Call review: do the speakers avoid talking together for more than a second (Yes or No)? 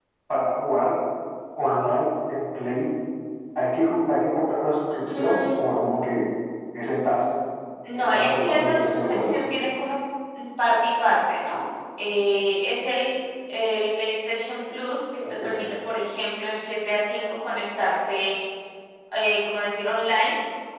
No